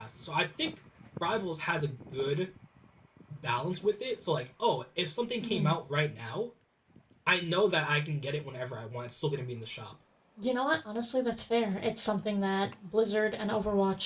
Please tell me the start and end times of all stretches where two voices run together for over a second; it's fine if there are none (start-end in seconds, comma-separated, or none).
none